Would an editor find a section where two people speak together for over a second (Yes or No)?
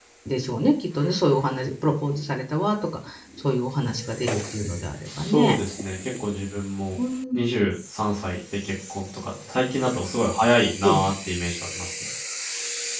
No